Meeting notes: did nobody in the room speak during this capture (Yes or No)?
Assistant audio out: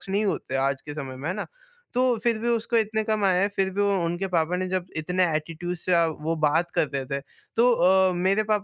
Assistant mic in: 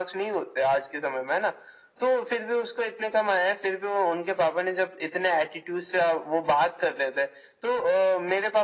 Yes